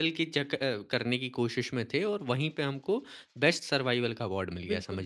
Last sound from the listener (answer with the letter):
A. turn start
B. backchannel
A